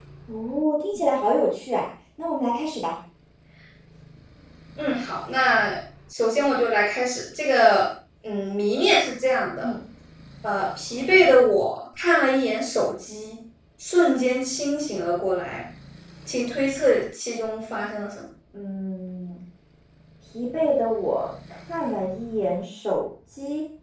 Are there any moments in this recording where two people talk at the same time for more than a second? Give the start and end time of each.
none

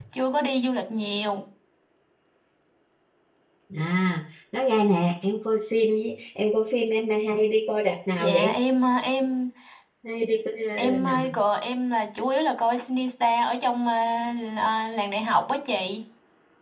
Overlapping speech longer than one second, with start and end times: none

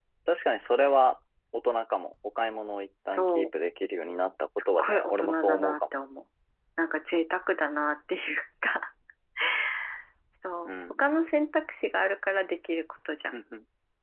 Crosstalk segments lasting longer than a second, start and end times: 4.6-5.8

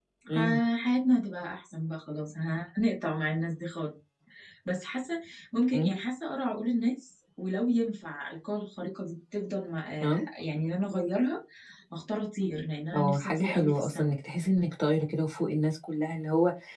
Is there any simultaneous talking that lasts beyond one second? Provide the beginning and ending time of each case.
12.9-14.2

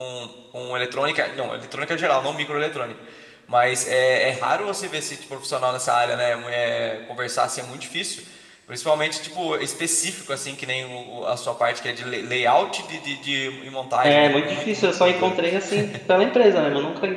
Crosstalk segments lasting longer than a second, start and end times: 14.0-15.3

